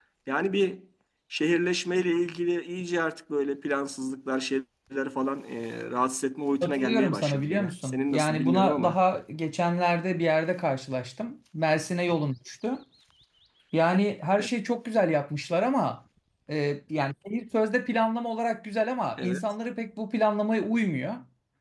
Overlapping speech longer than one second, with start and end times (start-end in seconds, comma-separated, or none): 6.6-9.0